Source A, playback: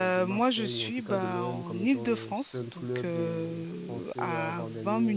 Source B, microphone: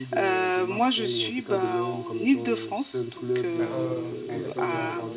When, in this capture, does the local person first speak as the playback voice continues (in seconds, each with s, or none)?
3.6 s